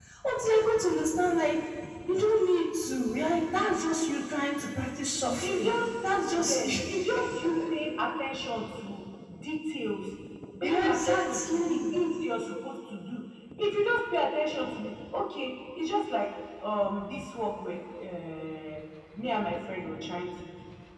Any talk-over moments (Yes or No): Yes